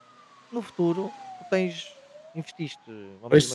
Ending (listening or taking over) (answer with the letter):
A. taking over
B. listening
B